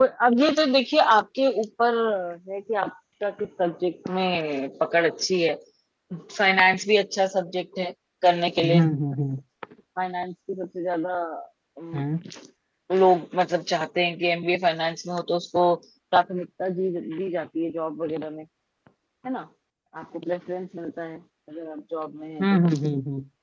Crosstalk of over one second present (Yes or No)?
No